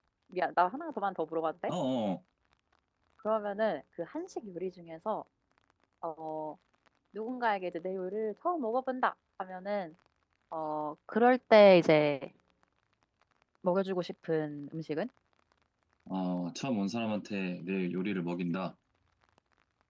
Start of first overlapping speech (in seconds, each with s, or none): none